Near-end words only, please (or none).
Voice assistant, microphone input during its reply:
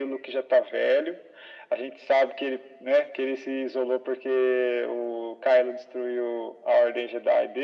none